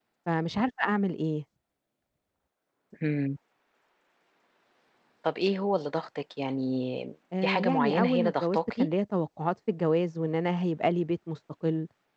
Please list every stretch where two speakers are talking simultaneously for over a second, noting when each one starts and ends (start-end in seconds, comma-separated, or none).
7.4-8.9